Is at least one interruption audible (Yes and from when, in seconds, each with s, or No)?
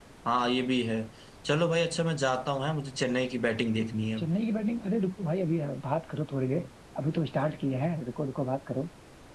No